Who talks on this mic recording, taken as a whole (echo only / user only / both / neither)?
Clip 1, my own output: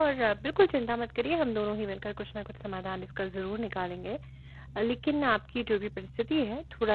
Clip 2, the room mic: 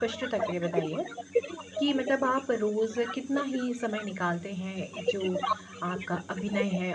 both